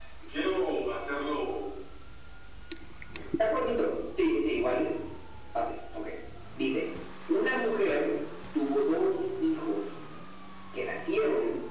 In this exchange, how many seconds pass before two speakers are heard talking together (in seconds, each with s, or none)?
none